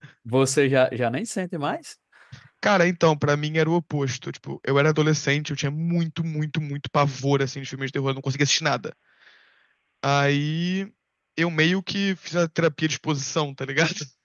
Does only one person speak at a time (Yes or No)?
Yes